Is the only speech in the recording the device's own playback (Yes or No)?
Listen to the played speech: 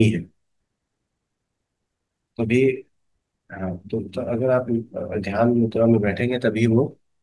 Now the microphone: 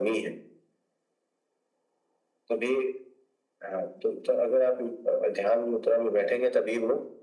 Yes